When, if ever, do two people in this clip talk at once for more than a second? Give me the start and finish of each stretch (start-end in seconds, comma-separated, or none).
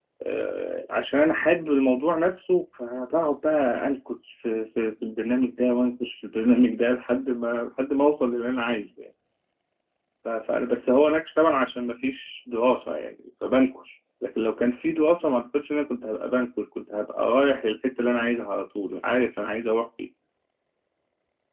none